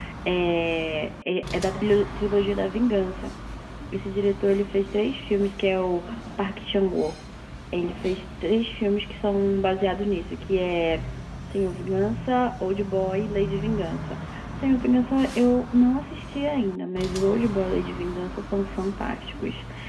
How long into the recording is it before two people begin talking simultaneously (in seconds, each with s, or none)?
none